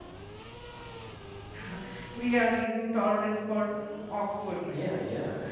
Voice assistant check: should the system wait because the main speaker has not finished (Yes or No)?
No